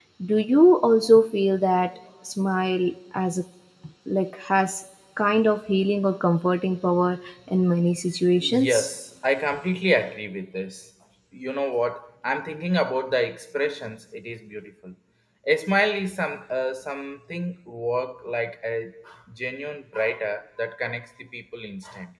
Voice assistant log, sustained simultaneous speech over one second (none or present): none